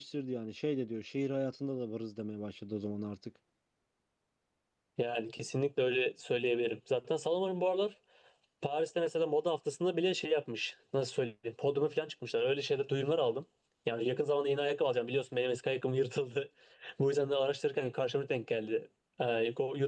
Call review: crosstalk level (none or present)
none